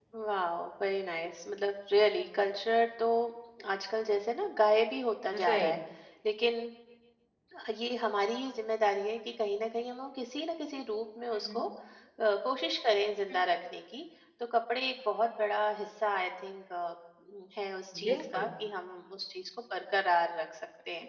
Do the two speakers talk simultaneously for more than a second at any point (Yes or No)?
No